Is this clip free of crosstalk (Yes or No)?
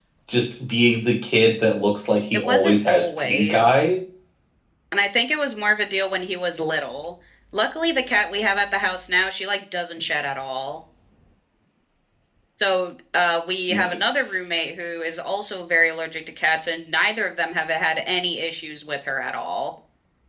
No